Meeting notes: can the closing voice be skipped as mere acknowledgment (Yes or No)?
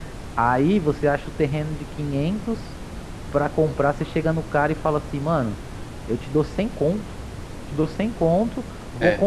Yes